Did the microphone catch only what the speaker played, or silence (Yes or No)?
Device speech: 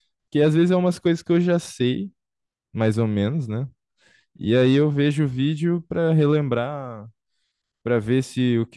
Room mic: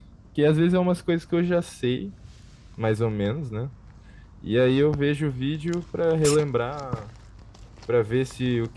Yes